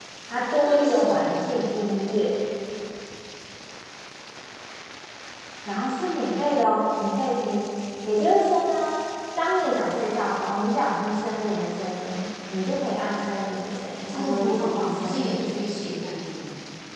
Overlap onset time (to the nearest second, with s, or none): 1 s